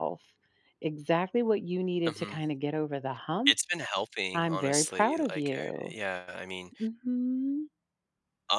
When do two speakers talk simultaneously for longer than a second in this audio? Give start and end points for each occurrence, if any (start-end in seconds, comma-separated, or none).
4.3-5.9